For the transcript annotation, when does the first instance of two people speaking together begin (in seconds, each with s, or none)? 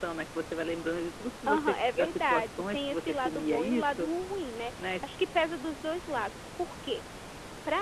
1.5 s